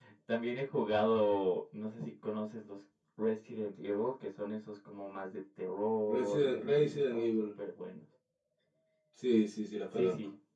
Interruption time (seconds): 6.1 s

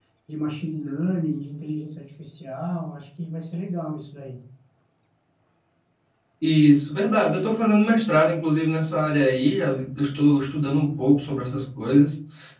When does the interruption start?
none

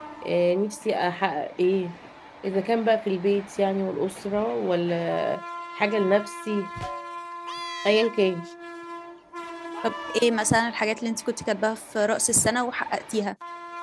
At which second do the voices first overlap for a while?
none

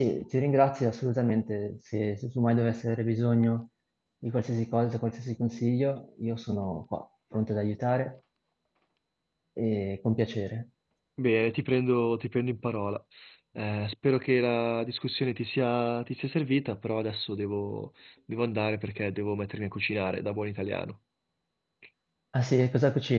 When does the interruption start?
none

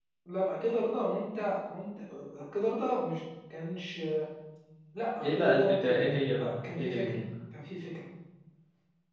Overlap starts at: 5.2 s

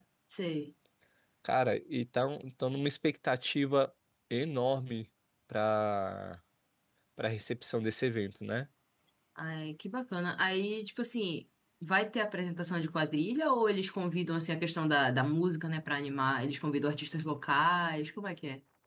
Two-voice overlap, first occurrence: none

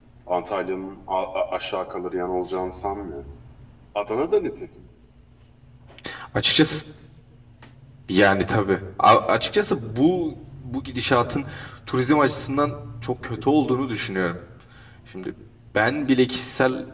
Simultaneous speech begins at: none

